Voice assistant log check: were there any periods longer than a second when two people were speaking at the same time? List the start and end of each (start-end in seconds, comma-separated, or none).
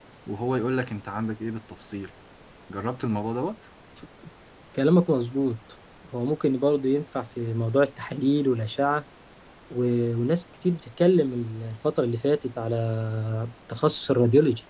none